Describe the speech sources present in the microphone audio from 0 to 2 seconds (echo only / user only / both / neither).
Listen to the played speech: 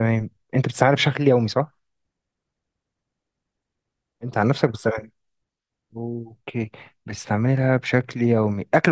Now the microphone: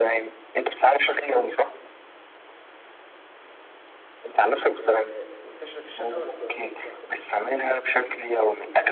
echo only